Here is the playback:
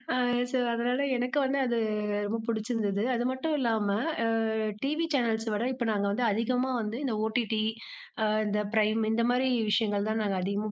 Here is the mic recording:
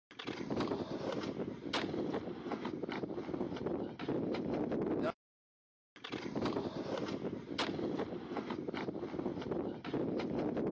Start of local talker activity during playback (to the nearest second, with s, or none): none